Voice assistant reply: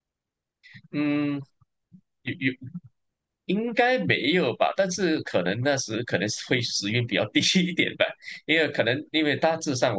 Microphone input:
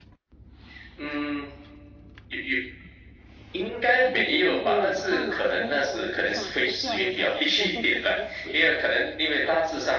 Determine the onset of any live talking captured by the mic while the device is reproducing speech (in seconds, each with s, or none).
4.1 s